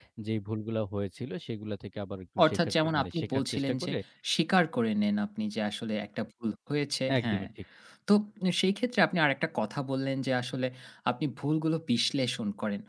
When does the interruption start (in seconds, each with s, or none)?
2.4 s